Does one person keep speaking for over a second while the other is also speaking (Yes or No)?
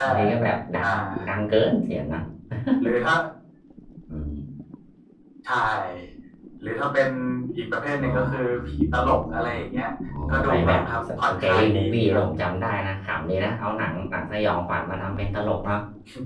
Yes